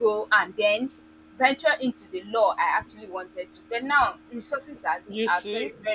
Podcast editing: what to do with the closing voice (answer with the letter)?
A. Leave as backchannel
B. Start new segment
A